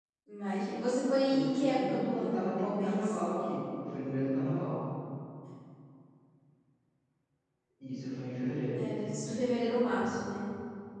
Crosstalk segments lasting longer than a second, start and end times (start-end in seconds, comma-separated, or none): 1.3-3.2